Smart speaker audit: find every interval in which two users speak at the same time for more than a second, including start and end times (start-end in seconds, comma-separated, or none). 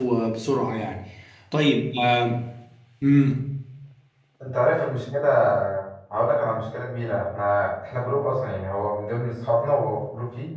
none